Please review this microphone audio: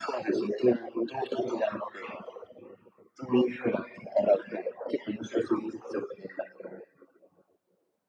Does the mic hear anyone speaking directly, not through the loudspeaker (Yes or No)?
No